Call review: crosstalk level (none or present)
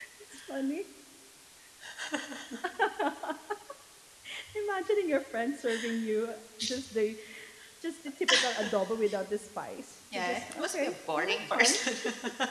present